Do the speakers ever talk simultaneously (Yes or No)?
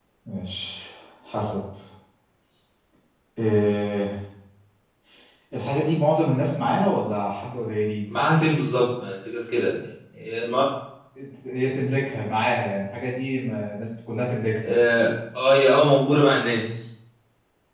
No